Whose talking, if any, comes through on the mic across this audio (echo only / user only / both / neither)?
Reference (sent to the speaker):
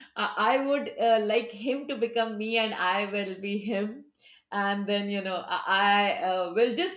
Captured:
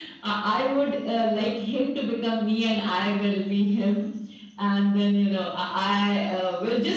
echo only